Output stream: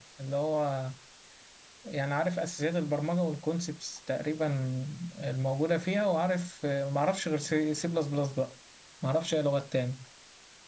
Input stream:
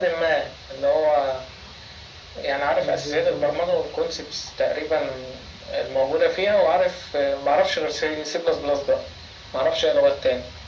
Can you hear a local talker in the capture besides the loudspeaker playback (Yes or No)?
Yes